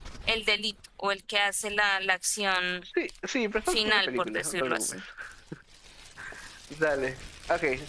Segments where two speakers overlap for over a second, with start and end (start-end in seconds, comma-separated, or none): 3.6-5.0